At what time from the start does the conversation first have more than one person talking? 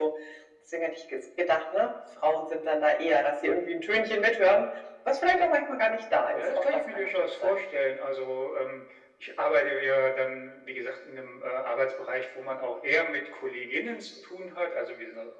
6.3 s

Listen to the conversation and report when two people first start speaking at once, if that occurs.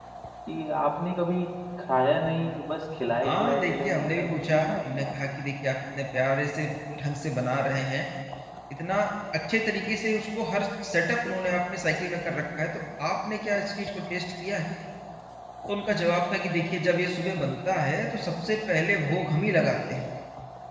3.2 s

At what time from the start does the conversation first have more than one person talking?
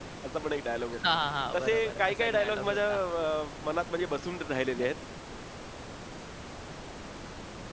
1.6 s

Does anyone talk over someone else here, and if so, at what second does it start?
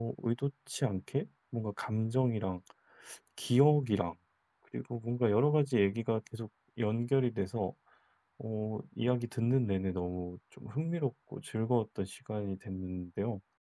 none

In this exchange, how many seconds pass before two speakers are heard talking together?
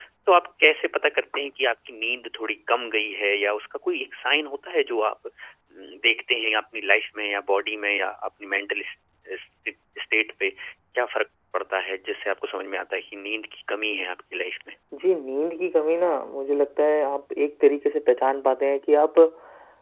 none

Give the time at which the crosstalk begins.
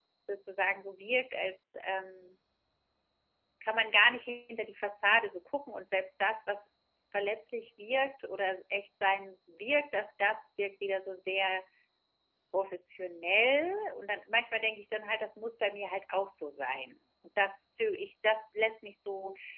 none

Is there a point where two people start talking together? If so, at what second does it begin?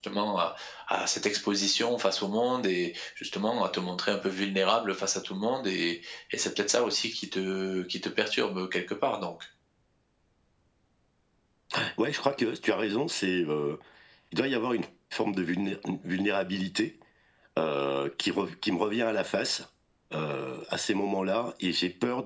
none

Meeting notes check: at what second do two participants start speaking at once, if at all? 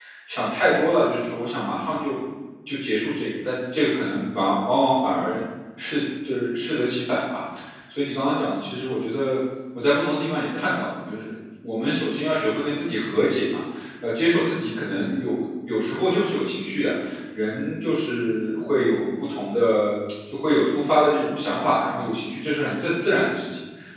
none

